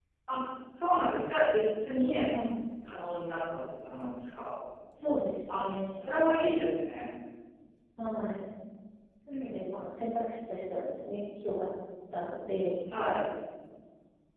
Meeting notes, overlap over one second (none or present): none